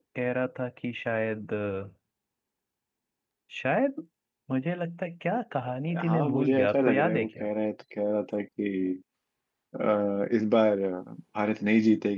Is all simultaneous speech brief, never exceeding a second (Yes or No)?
No